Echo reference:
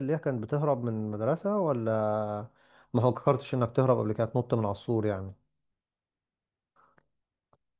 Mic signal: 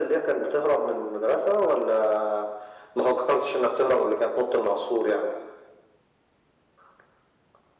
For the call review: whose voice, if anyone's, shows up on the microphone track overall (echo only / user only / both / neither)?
echo only